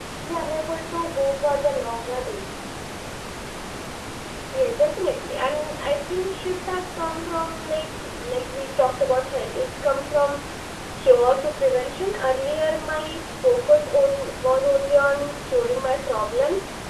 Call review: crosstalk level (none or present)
none